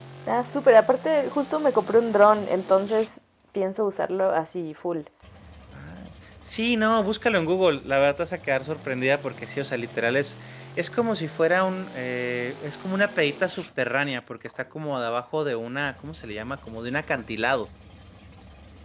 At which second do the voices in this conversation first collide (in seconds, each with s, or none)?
none